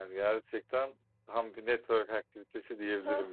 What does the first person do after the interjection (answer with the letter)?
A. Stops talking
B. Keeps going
A